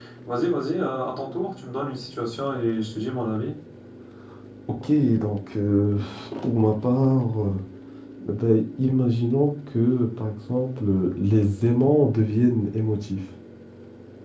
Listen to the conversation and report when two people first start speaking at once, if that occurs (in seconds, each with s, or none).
none